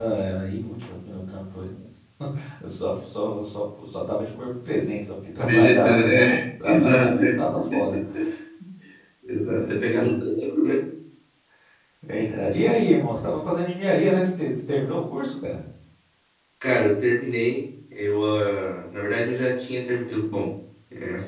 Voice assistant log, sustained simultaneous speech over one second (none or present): present